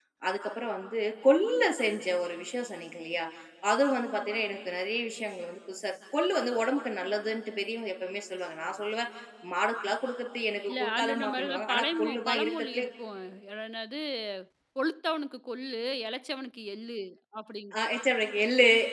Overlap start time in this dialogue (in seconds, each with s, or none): 10.7 s